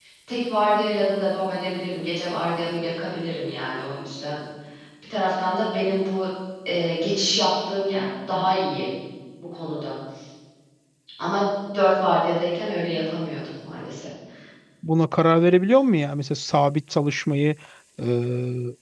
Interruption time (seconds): none

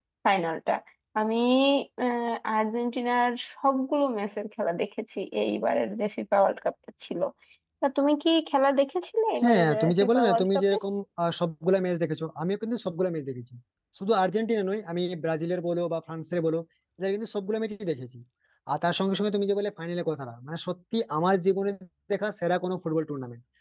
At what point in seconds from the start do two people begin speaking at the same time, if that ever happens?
9.4 s

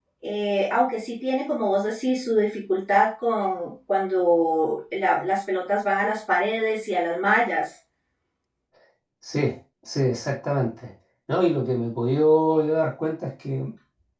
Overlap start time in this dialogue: none

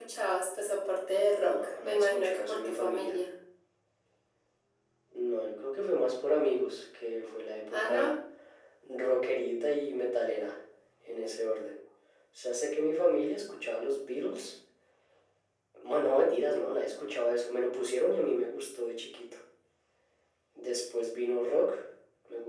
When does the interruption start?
1.4 s

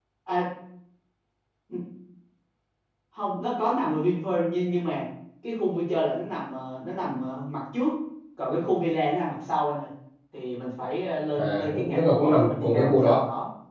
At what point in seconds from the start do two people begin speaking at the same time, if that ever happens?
11.3 s

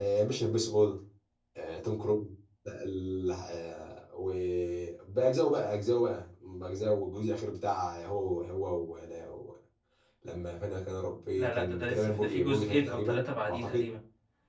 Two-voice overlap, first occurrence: 11.3 s

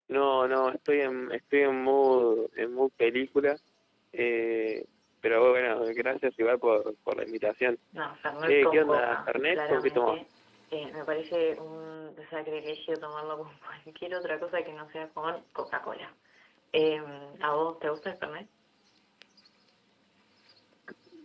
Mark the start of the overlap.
8.4 s

